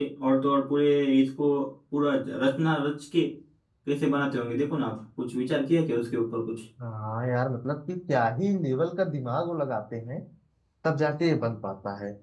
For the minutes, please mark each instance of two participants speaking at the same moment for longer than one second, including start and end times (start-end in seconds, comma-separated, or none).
none